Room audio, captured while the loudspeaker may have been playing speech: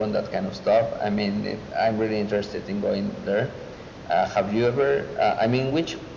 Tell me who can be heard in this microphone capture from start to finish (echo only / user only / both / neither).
echo only